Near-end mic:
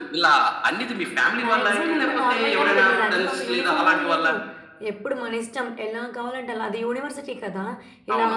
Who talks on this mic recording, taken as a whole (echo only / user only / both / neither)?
both